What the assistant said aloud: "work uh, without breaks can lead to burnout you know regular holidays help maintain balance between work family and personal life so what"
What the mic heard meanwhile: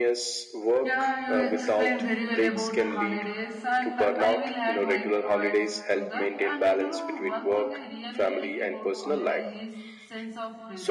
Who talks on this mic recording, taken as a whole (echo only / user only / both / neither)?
both